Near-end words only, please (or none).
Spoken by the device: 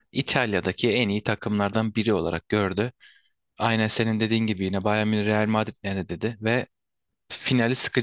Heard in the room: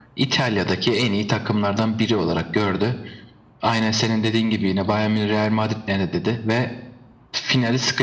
none